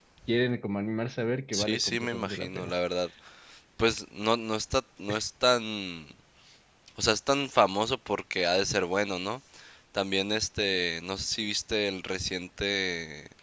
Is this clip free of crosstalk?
No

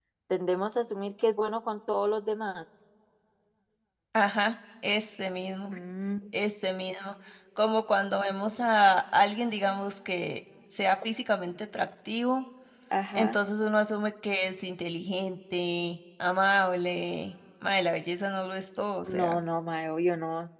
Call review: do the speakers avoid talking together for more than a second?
Yes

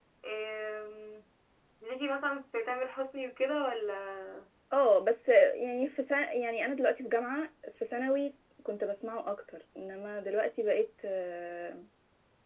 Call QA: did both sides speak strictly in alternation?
Yes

